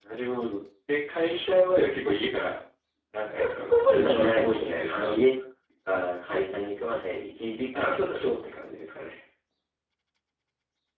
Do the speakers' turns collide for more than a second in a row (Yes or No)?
Yes